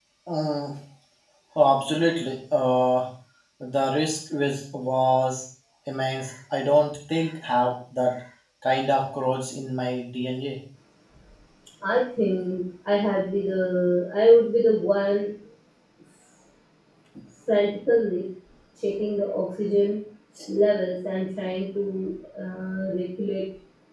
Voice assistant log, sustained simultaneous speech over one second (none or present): none